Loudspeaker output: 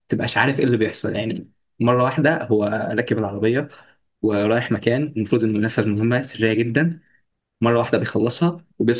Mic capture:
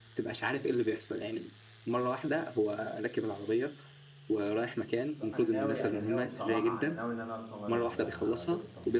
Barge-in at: 5.1 s

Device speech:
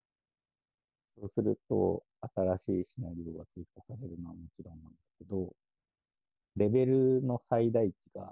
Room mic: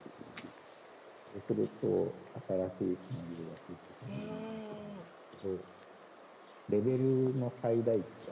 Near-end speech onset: 4.1 s

